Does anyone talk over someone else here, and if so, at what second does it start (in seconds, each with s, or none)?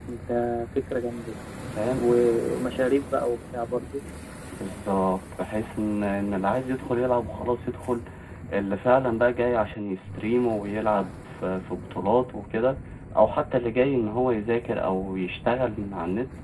none